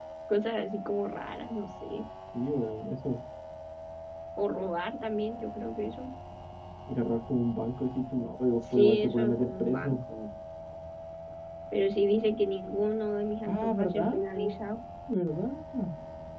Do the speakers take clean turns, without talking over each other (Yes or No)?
No